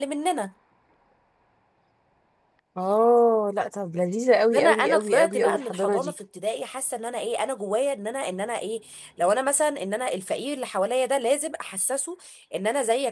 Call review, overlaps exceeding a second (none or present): present